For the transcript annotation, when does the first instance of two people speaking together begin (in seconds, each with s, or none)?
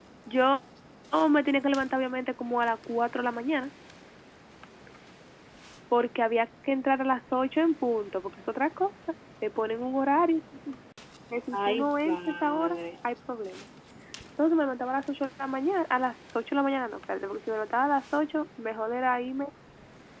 11.5 s